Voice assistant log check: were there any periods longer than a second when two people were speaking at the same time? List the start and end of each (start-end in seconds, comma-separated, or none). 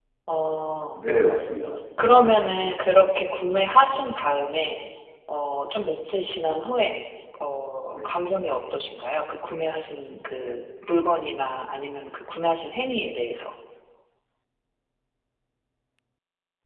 none